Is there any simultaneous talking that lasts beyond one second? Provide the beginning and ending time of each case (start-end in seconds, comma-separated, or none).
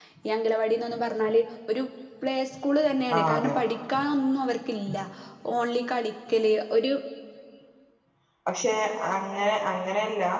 none